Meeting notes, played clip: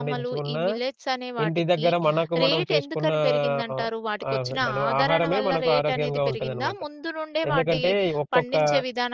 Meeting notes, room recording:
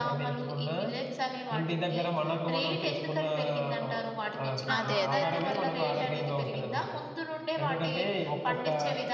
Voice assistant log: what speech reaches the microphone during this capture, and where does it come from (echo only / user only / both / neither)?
both